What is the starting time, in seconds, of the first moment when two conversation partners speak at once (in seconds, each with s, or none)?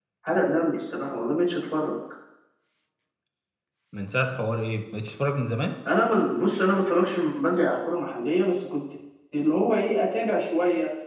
none